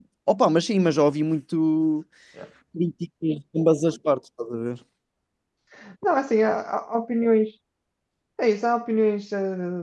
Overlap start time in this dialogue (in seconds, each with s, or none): none